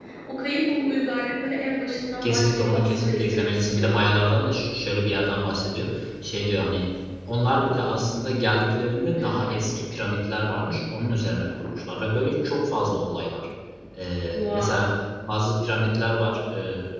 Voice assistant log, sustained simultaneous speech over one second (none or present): present